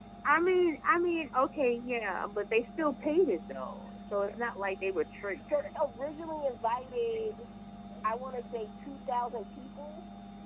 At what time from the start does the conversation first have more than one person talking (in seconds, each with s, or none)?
none